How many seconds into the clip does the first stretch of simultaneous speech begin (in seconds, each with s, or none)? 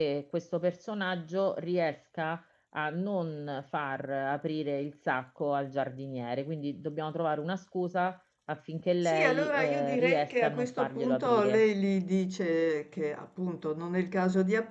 9.0 s